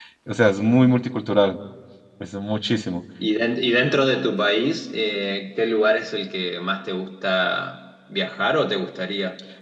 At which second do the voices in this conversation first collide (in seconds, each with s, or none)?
none